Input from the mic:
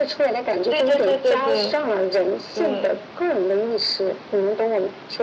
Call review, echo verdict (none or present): present